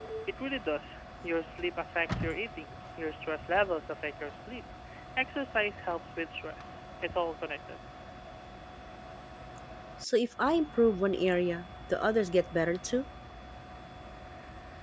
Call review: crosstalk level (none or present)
none